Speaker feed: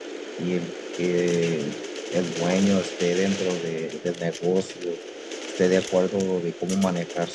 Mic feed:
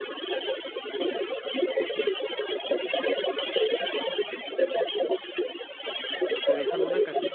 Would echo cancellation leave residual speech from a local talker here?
Yes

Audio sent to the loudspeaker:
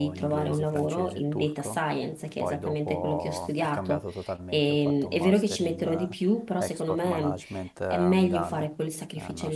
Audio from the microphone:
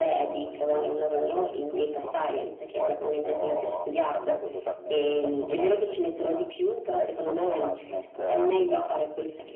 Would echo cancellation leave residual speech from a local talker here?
No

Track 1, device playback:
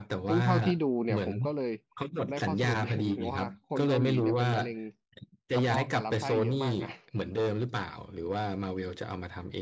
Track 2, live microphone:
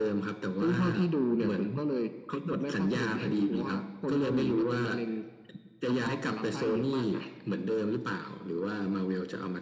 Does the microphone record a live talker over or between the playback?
No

